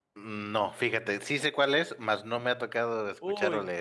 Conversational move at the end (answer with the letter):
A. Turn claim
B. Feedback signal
A